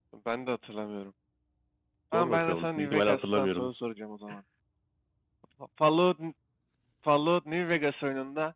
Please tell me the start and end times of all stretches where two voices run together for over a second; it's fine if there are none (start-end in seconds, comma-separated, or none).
2.1-3.7